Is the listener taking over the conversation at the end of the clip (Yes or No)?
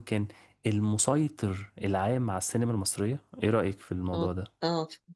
Yes